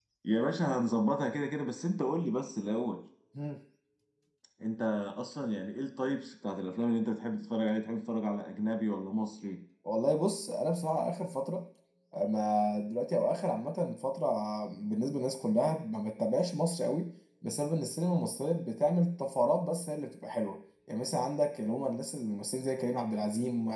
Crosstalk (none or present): none